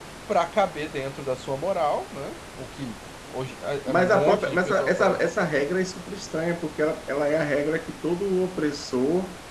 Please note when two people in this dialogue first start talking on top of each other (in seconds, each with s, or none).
3.9 s